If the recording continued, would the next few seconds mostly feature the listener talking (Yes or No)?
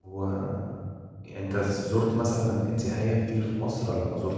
Yes